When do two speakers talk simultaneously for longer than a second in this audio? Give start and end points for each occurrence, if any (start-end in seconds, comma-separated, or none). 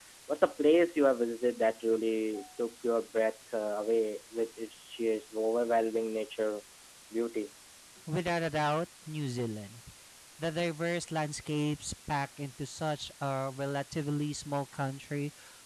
none